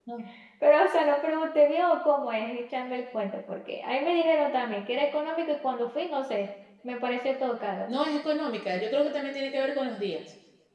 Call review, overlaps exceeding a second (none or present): none